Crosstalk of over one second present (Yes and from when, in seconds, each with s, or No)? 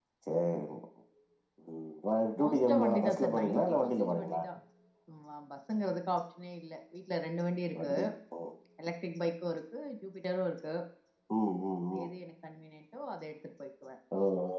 Yes, from 2.4 s